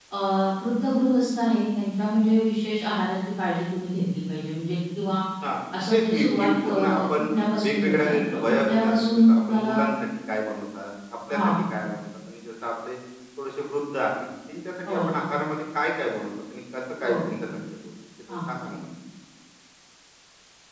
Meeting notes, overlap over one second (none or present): present